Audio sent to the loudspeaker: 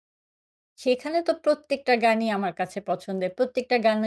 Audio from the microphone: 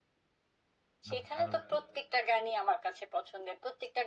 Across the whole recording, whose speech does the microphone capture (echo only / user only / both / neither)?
both